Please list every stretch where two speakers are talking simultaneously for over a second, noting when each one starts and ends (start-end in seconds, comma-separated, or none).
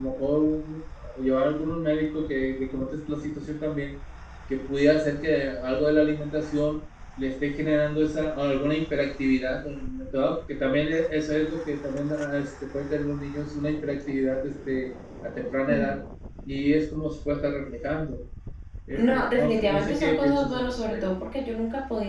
18.9-21.0